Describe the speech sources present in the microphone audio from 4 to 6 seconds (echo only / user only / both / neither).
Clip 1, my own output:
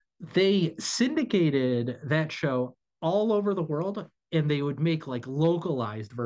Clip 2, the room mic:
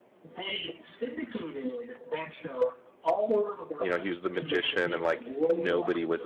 both